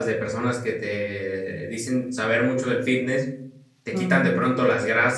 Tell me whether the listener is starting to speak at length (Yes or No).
No